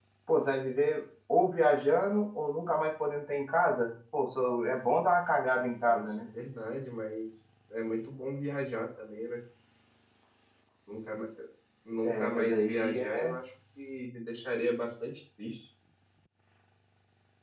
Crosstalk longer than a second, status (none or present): present